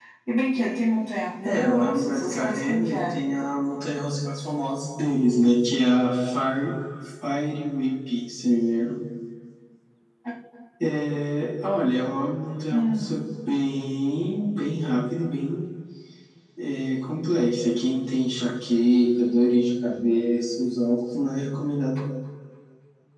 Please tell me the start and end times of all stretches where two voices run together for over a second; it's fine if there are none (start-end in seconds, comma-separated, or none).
1.4-3.2